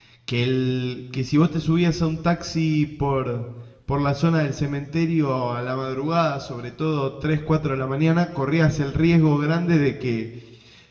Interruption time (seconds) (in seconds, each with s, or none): none